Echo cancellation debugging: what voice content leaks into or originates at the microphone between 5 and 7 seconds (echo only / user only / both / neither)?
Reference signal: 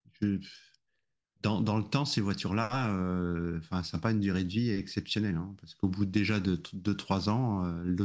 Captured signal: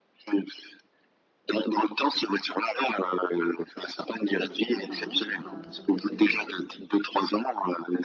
both